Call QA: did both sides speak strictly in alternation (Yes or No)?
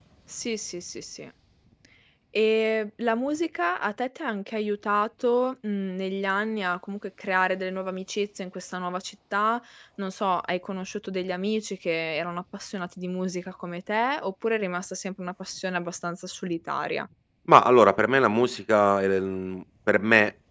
Yes